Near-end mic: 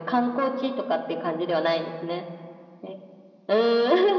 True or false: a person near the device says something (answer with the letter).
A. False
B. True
A